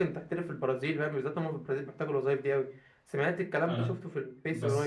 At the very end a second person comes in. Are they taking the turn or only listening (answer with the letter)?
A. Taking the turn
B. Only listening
A